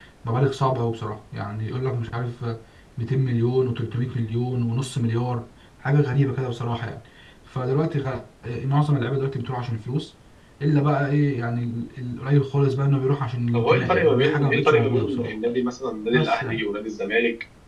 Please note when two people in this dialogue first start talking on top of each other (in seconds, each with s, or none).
13.5 s